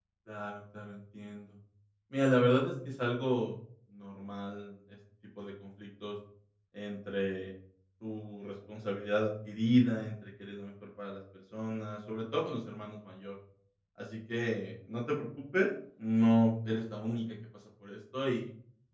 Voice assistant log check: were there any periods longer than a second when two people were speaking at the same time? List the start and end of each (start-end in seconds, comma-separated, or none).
none